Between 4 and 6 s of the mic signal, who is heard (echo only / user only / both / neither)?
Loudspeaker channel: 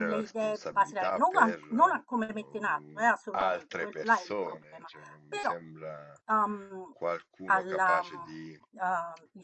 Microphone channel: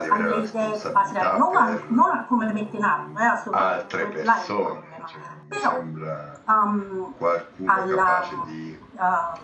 echo only